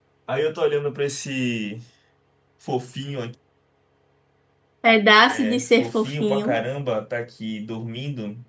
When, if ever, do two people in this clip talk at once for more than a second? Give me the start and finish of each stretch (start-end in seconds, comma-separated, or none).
5.2-6.6